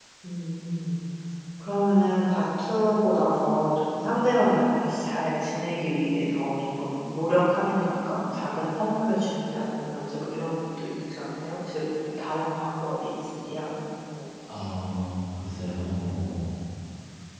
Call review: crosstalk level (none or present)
none